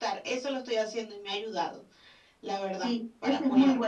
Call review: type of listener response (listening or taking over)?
taking over